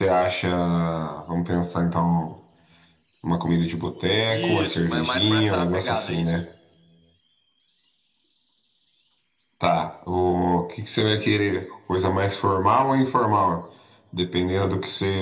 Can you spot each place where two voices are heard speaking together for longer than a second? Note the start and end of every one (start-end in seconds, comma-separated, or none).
4.3-6.4